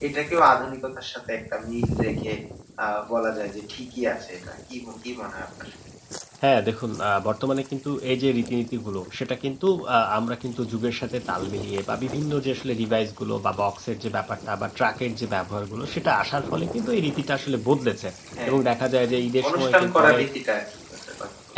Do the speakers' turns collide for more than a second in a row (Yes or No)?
Yes